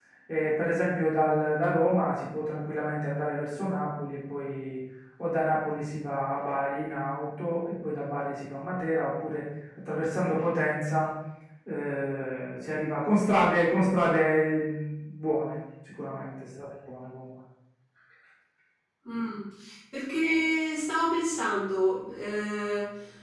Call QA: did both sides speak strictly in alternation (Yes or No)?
Yes